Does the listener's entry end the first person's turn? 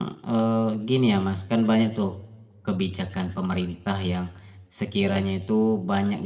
No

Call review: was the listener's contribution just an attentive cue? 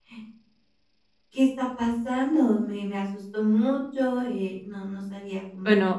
No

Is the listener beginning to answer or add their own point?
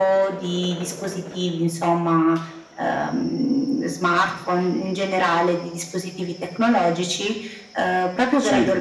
No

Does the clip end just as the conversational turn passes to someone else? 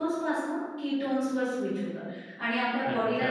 No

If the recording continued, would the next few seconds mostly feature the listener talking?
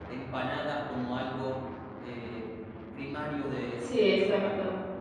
Yes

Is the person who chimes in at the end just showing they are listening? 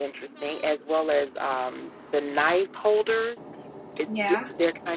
Yes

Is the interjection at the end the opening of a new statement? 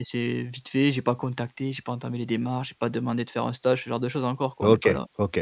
Yes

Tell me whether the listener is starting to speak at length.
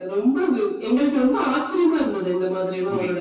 Yes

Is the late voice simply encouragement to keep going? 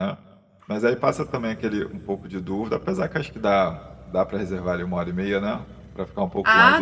No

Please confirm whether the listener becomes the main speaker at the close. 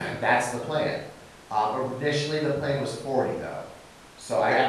No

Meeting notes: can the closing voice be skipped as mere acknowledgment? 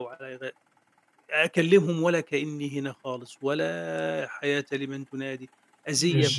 No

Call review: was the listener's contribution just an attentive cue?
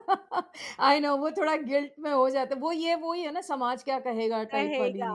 No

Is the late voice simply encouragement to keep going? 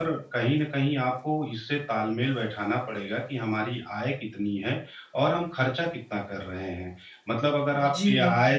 Yes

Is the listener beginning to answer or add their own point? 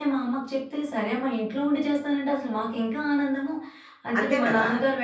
No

